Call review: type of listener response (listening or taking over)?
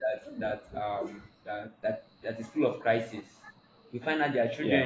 listening